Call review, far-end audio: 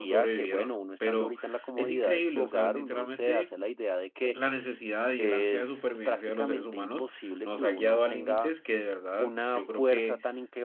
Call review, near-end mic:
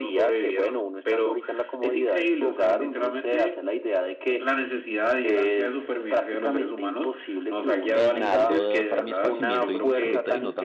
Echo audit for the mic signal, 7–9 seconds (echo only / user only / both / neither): both